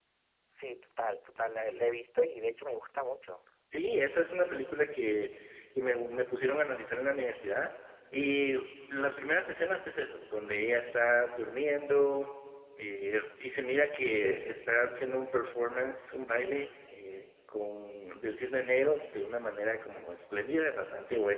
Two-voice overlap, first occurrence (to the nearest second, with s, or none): none